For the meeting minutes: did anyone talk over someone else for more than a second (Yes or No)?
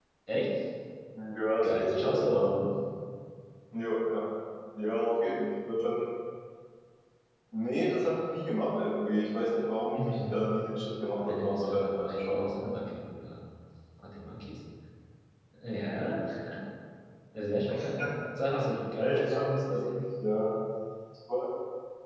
Yes